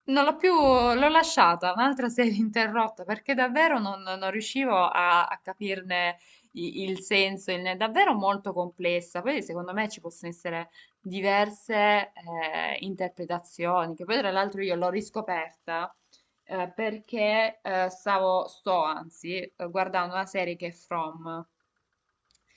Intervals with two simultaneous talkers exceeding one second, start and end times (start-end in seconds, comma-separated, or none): none